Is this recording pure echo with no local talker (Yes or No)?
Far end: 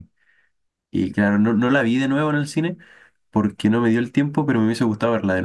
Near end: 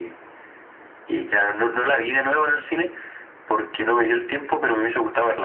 Yes